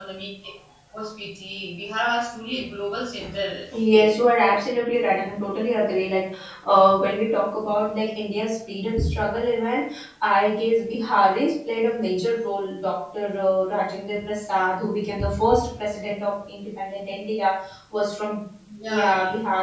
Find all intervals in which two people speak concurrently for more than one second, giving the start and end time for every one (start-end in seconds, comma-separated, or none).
none